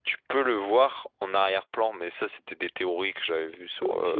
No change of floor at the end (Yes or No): No